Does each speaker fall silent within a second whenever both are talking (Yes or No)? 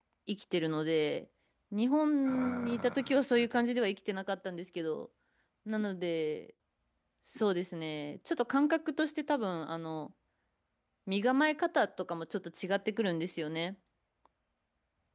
No